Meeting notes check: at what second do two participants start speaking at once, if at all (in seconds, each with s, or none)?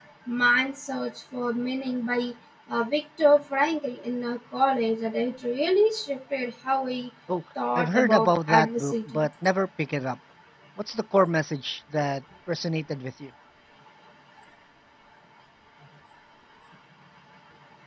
7.7 s